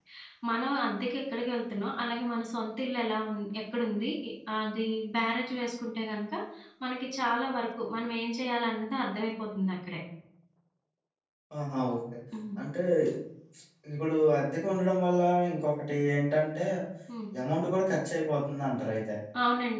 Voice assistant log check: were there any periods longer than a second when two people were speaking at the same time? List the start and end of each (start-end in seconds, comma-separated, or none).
none